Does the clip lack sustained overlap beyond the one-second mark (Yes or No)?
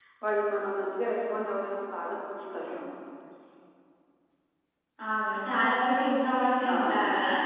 Yes